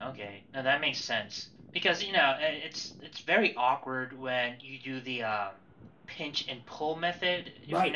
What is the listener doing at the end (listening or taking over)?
taking over